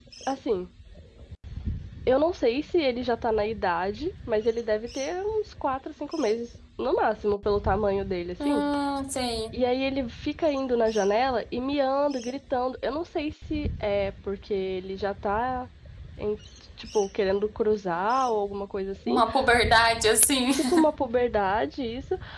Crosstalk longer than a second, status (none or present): none